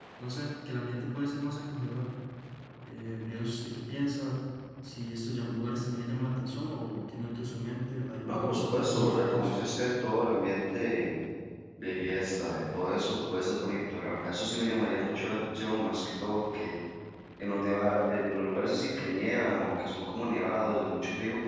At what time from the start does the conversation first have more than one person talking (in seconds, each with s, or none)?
8.2 s